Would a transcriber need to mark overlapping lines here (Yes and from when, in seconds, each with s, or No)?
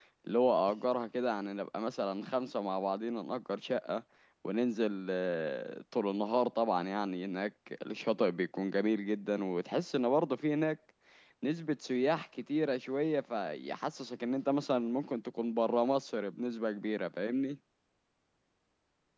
No